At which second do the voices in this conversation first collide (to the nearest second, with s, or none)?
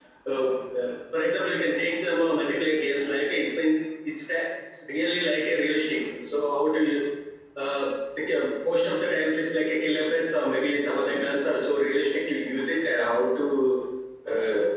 none